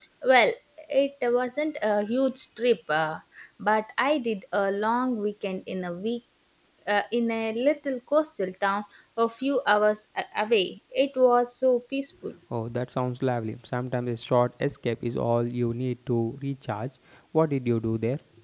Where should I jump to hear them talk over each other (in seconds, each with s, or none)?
none